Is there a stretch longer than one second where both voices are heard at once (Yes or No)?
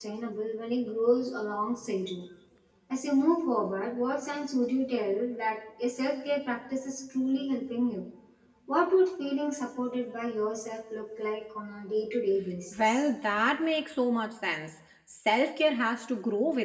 No